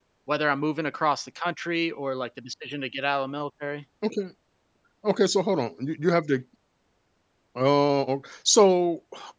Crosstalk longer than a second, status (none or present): none